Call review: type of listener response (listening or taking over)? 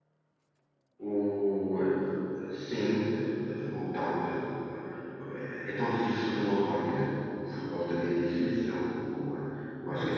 listening